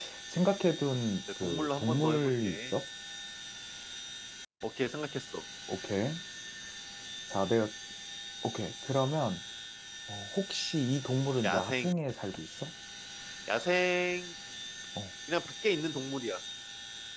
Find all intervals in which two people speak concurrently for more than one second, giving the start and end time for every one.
1.4-2.7

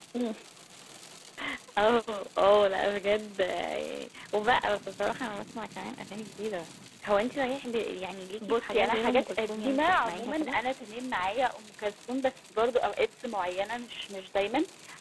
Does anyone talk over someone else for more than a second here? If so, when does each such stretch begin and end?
8.4-10.6

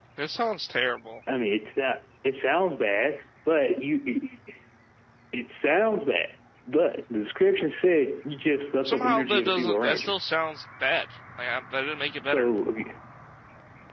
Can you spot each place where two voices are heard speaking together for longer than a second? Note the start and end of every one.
8.8-10.1

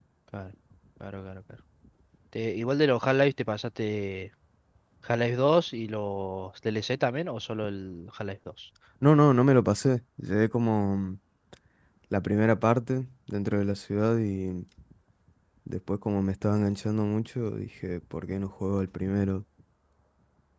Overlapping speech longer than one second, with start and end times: none

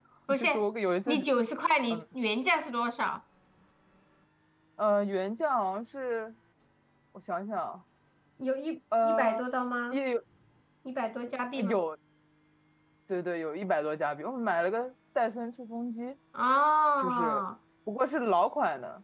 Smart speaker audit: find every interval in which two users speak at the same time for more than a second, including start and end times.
none

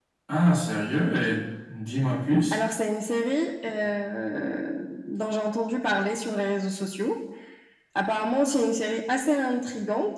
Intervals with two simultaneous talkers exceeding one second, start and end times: none

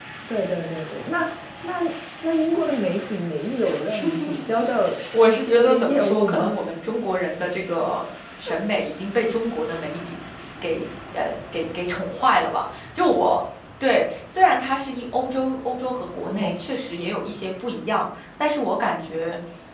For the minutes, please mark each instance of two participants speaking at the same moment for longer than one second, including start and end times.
5.2-6.6

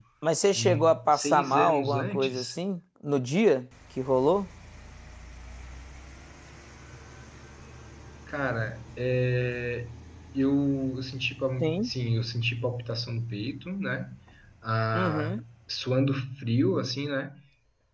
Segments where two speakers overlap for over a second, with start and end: 0.5-2.5

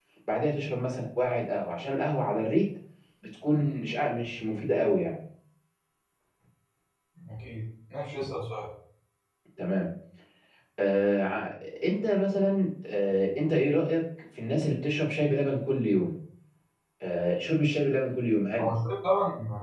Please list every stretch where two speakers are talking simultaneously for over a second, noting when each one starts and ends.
none

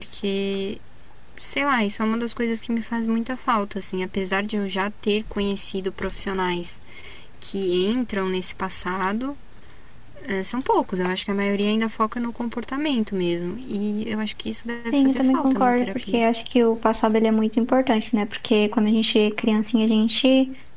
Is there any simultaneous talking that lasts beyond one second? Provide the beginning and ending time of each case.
14.9-16.2

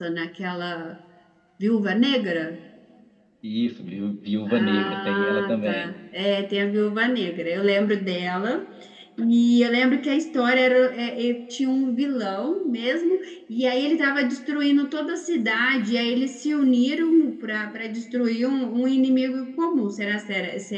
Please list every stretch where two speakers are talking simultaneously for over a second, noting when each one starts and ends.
4.5-5.9

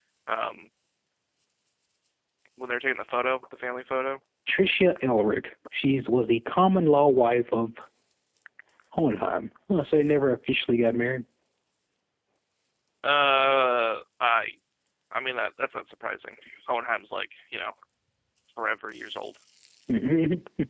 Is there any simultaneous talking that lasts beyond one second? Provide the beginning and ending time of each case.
none

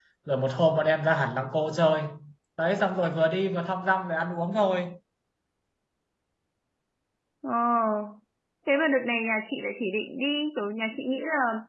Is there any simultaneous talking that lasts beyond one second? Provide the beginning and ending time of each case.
none

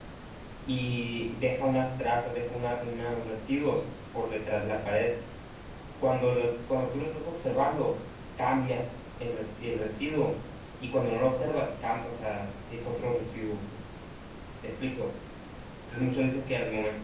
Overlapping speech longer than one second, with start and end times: none

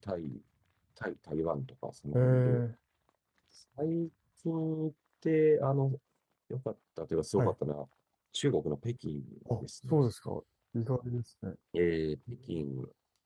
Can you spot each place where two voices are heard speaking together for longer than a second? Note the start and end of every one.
none

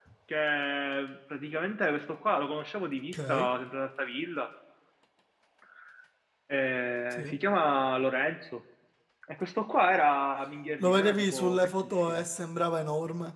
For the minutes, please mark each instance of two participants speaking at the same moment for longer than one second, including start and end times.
10.8-12.2

